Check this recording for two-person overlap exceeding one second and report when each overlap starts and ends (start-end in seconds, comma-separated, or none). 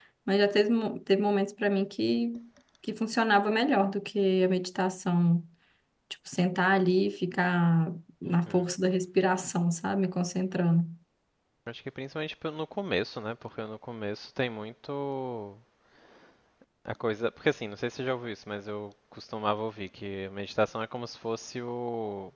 none